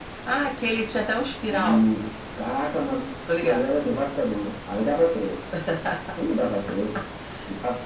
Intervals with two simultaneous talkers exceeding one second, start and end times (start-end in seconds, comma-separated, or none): none